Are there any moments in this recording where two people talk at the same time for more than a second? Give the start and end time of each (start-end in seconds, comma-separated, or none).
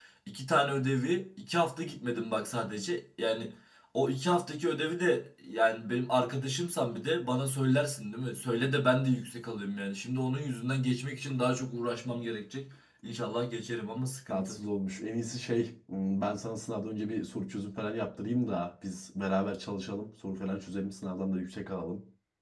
none